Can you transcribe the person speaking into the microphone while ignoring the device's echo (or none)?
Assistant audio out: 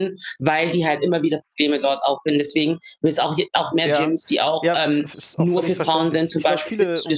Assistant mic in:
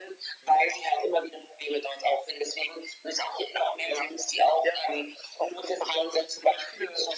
none